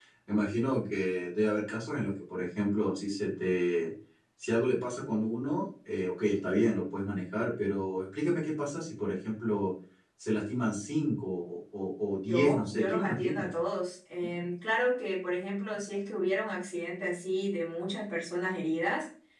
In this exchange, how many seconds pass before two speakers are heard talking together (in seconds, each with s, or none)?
12.3 s